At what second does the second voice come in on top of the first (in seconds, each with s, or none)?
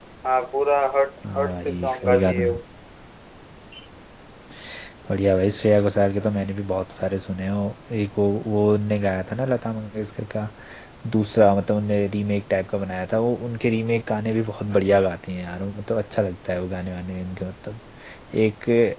1.2 s